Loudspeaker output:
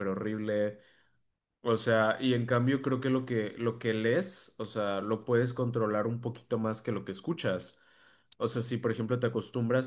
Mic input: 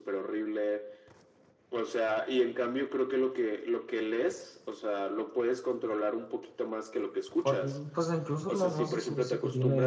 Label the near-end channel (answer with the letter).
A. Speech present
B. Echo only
A